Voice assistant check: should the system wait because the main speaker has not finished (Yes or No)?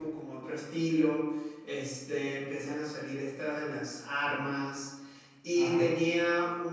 Yes